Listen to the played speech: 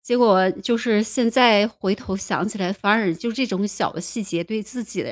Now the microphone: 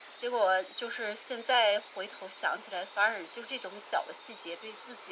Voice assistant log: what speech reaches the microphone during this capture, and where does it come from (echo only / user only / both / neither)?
echo only